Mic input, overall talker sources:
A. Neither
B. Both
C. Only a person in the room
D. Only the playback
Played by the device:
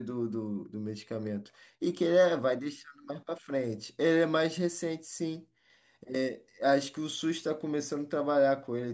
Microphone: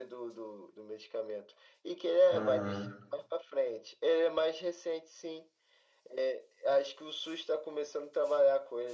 B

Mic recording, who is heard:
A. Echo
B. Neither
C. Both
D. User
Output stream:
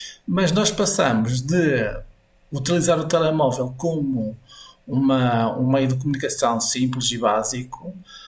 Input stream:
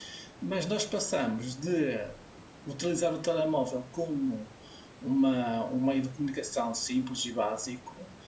A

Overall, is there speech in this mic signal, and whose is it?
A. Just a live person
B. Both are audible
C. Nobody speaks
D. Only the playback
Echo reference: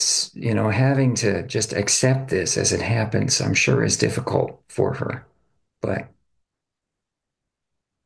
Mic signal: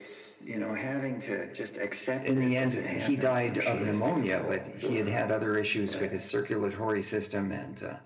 B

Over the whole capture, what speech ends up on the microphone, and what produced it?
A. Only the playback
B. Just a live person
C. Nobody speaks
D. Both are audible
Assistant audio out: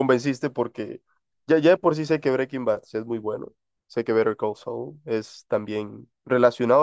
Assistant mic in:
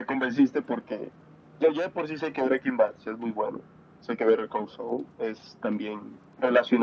A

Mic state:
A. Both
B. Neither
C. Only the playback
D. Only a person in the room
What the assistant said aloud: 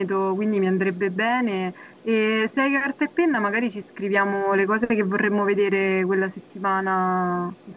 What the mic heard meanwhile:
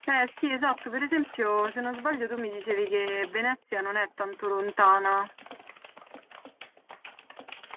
D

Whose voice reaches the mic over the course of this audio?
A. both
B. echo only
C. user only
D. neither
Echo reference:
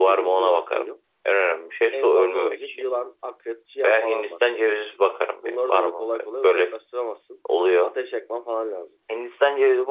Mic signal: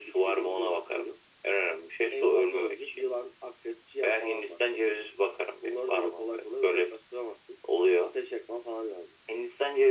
B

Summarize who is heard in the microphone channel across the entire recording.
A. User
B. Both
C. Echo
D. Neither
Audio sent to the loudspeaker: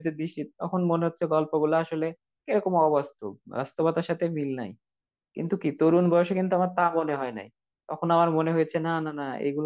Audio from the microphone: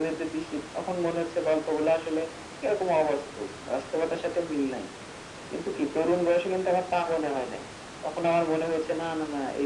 C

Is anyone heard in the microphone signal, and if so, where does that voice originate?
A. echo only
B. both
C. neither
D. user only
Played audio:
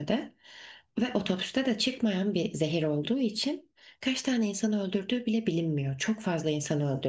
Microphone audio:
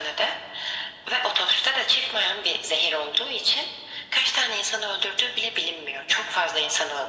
A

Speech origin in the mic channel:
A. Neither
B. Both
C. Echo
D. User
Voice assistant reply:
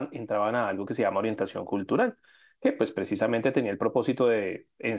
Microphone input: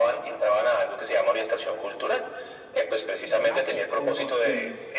B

